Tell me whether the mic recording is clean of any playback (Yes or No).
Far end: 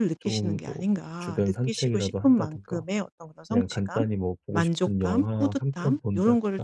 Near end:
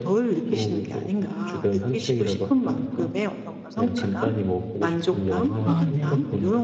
No